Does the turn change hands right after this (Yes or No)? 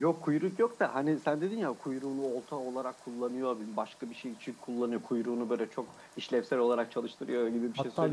Yes